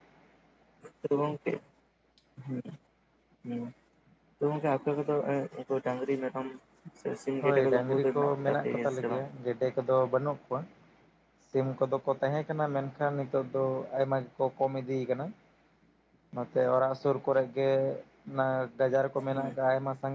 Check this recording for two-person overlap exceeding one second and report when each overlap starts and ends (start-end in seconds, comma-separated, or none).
7.4-9.2